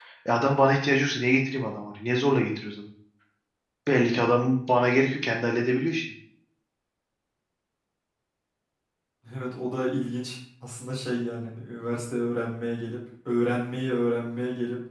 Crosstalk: none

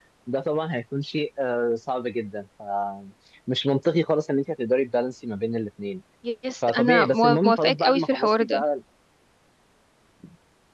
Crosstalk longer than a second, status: present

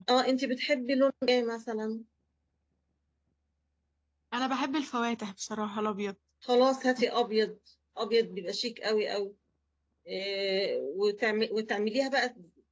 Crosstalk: none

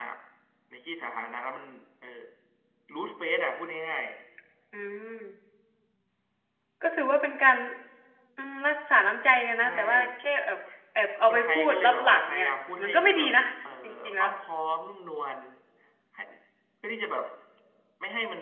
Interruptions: present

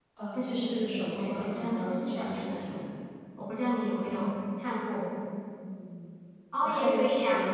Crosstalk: present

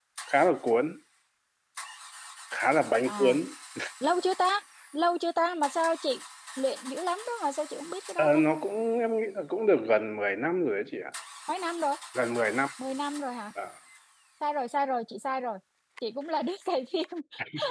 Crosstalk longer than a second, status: none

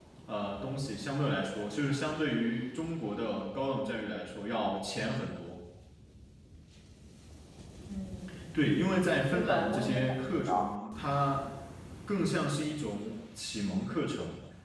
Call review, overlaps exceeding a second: present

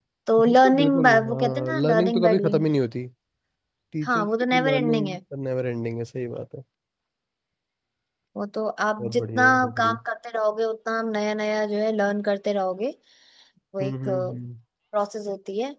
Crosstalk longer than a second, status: present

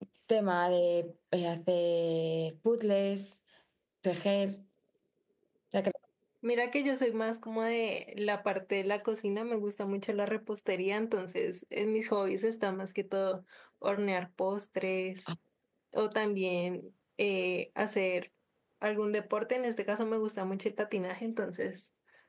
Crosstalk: none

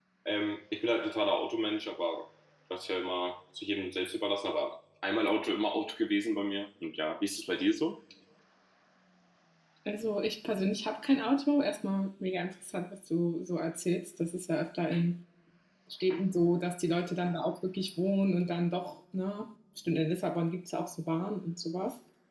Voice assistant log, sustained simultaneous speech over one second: none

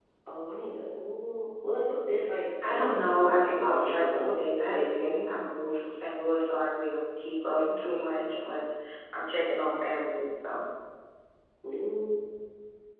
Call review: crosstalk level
present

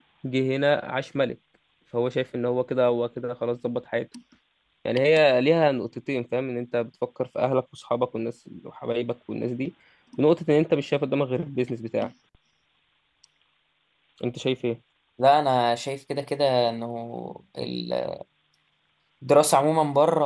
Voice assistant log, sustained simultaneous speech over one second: none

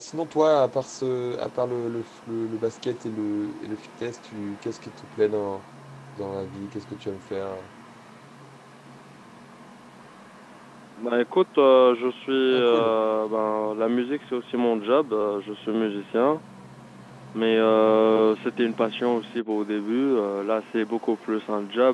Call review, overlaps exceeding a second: none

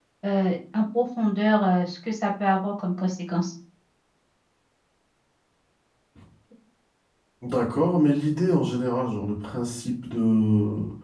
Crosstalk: none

